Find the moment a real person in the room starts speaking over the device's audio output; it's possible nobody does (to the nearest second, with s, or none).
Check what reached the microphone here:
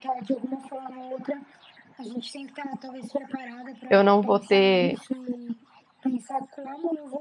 4 s